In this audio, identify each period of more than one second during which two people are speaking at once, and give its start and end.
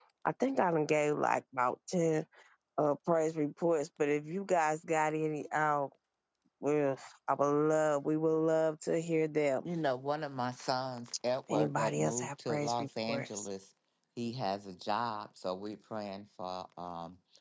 11.5-13.5

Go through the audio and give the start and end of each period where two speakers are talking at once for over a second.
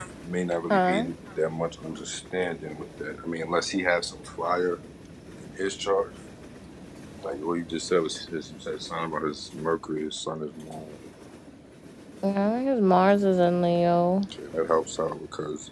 none

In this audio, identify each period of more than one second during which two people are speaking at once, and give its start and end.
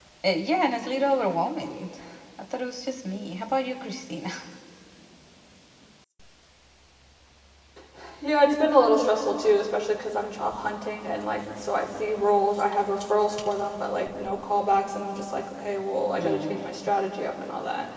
none

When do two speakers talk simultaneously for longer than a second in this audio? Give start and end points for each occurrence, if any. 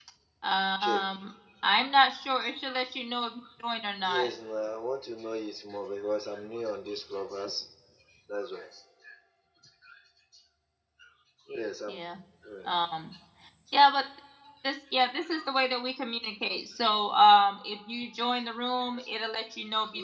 none

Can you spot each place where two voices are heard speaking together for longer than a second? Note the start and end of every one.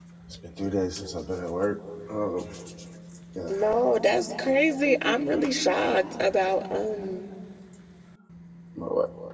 none

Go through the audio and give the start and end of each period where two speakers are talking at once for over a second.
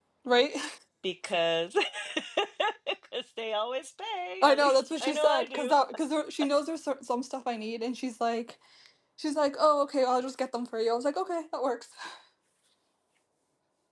4.4-5.7

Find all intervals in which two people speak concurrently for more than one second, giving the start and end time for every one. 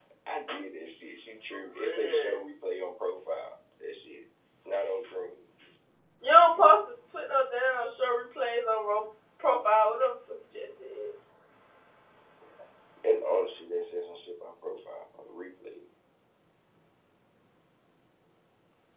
none

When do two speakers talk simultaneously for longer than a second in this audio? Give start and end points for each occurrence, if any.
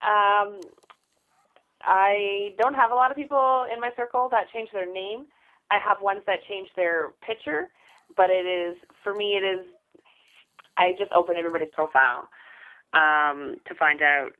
none

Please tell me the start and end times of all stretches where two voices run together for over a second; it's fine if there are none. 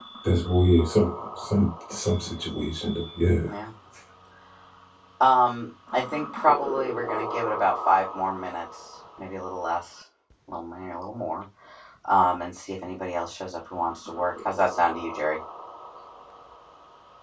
none

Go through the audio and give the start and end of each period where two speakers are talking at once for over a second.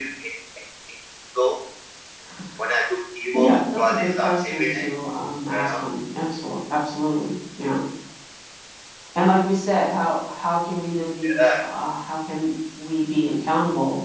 3.3-4.9

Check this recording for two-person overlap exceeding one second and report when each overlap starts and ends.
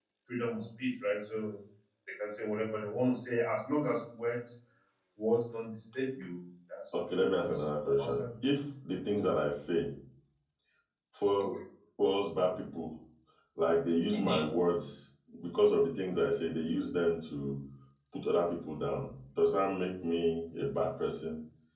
6.9-8.6

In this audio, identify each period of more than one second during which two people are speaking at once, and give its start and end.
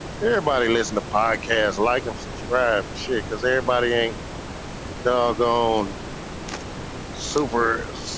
none

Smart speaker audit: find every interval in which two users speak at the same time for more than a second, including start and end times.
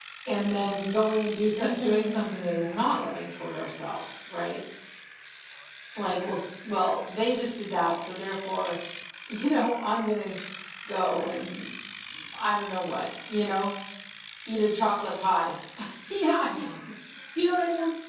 1.6-2.9

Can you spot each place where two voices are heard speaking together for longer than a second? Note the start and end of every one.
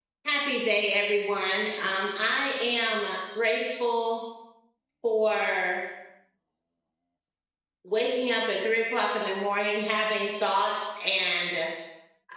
none

